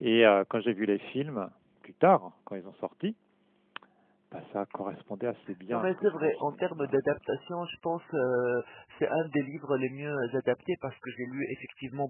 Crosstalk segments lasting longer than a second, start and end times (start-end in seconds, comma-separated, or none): 5.7-7.0